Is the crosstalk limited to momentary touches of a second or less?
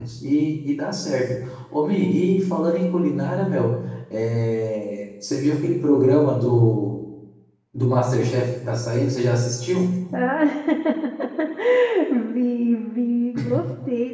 Yes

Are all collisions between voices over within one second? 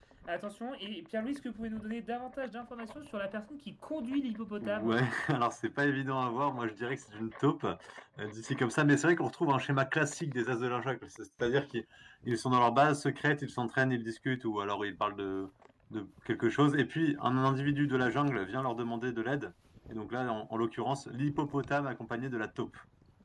Yes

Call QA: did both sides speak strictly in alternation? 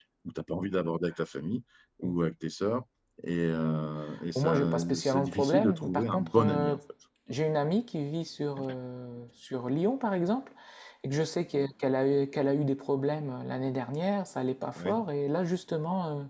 No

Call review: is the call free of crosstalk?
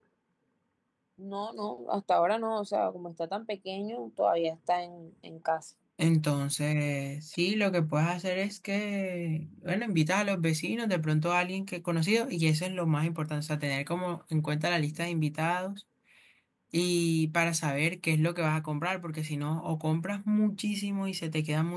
Yes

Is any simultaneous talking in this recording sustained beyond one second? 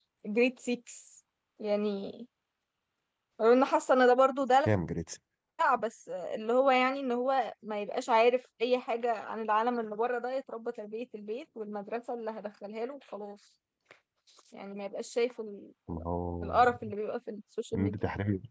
No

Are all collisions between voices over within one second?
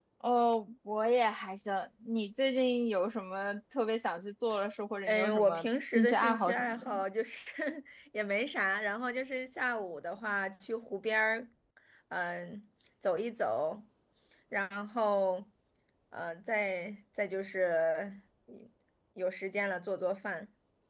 No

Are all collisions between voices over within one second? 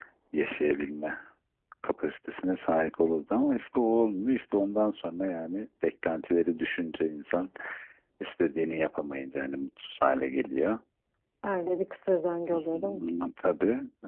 Yes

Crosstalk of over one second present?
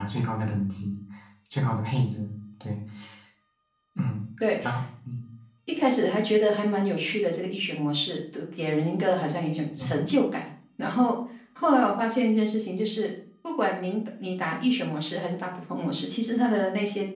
No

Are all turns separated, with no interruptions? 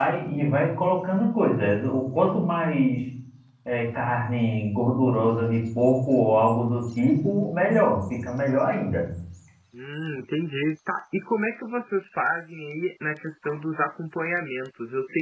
Yes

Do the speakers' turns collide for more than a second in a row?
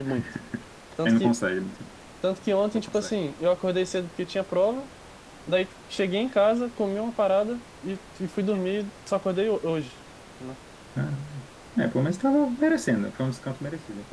No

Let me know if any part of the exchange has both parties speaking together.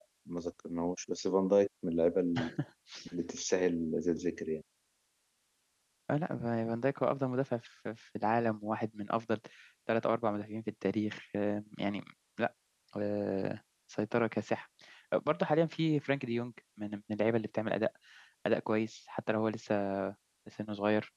No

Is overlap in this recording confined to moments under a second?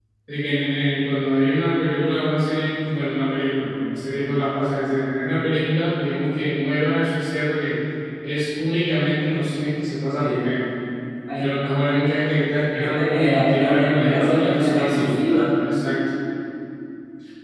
No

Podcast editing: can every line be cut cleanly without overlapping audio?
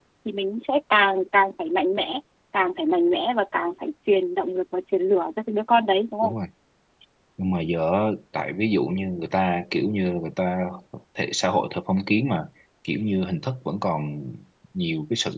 Yes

